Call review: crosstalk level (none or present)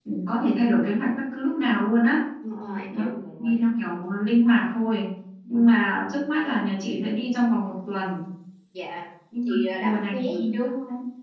present